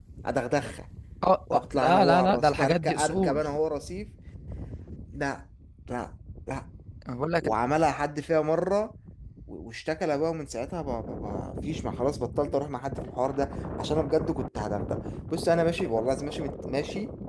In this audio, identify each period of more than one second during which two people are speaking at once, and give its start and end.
1.5-3.4

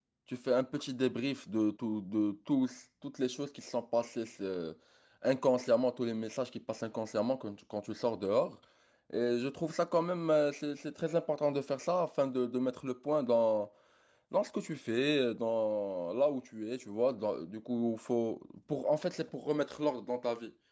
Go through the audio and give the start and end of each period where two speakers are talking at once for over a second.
none

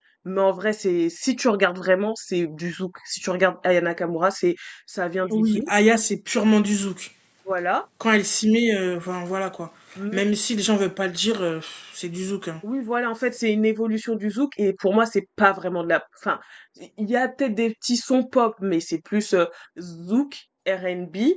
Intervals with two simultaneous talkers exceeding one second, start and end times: none

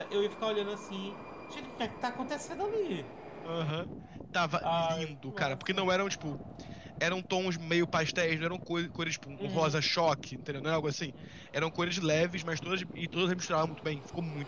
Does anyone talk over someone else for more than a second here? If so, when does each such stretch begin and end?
4.6-5.8

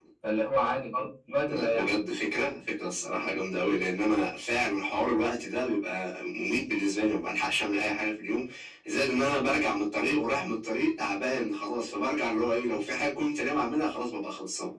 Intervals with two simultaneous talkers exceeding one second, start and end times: none

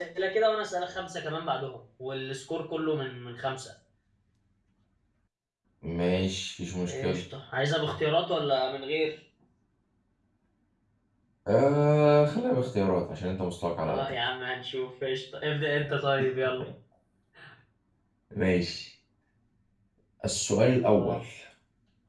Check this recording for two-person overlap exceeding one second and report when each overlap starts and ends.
none

